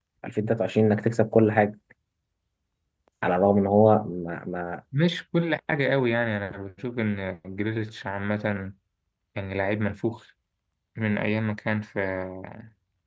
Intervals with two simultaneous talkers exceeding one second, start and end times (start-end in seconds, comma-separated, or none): none